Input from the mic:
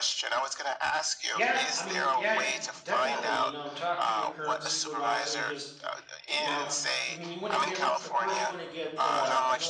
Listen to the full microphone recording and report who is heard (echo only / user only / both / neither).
both